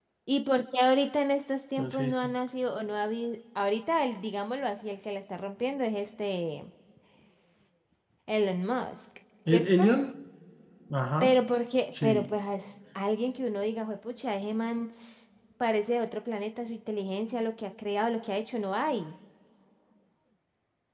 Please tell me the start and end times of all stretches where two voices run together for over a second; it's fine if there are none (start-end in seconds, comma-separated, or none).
none